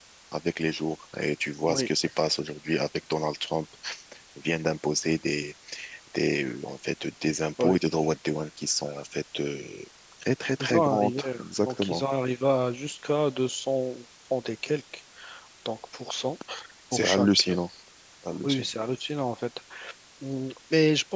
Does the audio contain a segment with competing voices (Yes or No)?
Yes